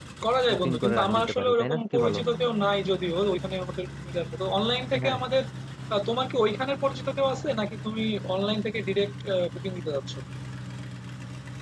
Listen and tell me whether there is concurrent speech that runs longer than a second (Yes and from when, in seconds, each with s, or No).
Yes, from 0.5 s